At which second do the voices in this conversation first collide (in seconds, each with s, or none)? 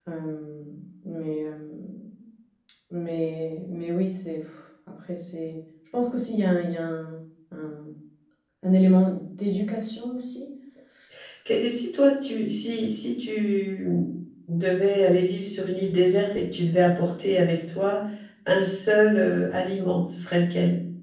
none